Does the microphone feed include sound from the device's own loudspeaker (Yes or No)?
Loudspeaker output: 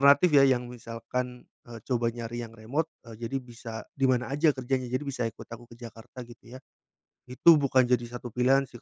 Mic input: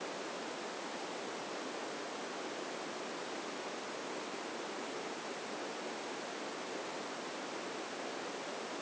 No